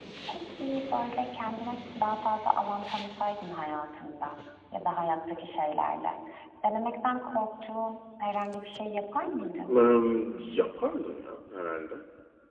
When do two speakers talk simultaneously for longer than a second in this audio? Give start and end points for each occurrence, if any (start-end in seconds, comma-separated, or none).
none